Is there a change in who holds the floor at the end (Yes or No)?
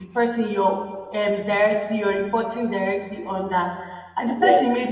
No